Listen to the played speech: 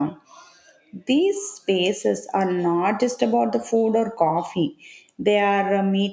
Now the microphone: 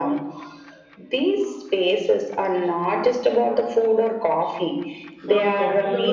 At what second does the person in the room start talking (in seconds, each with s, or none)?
5.1 s